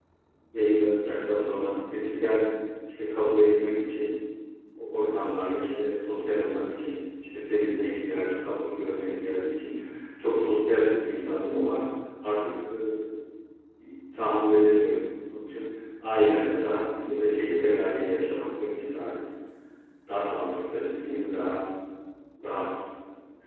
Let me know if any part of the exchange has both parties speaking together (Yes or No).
No